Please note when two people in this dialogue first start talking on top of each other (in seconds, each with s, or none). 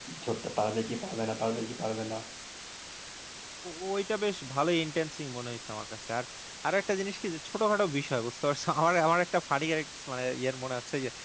none